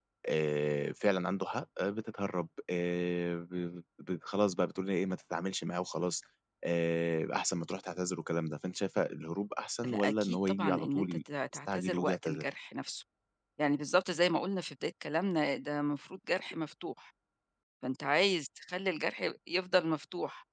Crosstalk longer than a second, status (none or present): present